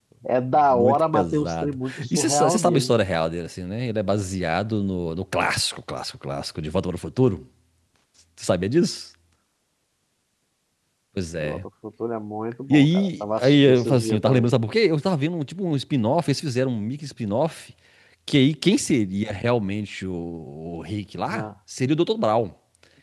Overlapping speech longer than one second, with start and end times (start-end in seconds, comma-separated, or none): 0.7-2.9, 12.7-14.6